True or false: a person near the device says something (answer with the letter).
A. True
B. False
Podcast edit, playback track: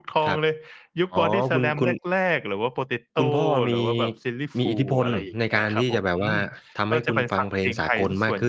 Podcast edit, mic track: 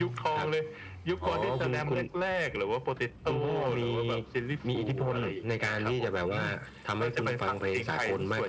B